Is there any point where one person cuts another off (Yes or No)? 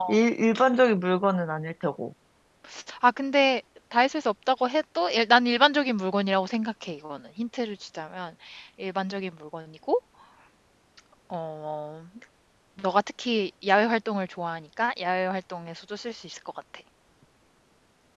No